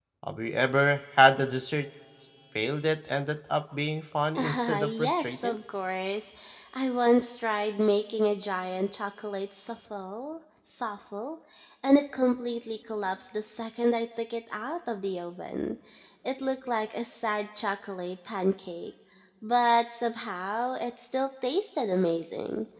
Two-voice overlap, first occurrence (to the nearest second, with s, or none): 4 s